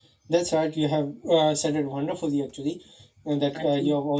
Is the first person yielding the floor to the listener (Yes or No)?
No